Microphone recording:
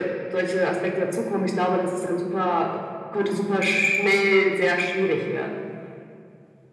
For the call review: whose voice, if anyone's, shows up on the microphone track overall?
echo only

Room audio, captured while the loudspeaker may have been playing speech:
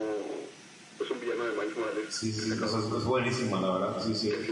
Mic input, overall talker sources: both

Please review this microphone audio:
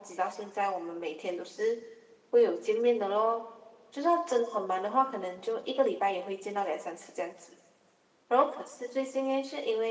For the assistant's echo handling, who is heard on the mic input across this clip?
echo only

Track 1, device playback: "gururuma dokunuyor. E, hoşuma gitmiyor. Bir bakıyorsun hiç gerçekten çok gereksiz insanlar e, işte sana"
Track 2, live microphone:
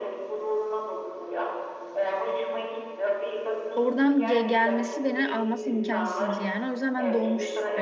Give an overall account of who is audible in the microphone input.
both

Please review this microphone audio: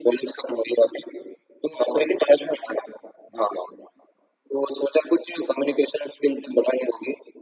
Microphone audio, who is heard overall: echo only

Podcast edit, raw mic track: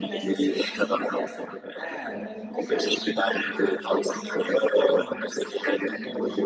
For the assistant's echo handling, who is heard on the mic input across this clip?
both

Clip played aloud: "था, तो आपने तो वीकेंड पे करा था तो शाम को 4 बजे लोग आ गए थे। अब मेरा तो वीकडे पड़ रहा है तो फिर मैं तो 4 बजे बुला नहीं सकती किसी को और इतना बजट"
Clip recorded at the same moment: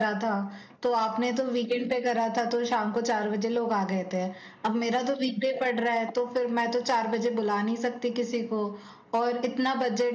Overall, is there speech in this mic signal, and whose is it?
echo only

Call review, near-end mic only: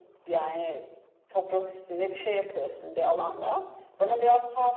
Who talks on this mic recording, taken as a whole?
echo only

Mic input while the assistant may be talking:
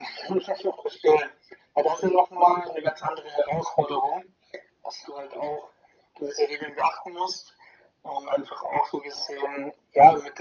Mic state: echo only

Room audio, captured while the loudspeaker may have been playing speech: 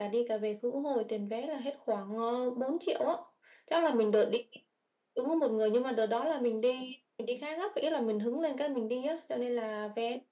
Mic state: echo only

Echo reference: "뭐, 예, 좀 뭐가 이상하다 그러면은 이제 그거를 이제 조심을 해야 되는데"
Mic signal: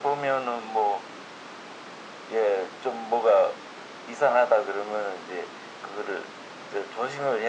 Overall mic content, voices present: echo only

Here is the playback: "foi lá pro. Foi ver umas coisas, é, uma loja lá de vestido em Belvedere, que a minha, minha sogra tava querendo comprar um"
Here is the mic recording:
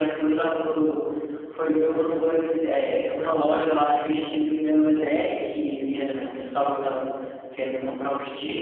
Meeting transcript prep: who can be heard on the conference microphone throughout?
echo only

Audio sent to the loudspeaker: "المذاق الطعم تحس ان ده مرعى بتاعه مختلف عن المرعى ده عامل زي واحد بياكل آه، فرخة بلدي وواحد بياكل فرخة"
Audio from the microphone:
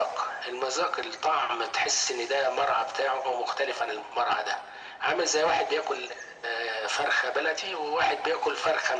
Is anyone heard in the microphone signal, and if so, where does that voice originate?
echo only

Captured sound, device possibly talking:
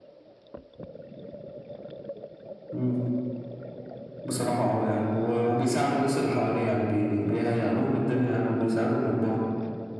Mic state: echo only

